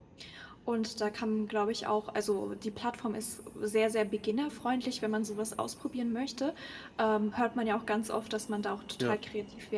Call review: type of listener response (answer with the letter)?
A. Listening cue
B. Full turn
A